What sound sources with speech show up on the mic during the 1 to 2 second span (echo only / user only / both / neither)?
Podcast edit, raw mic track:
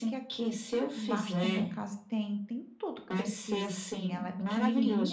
both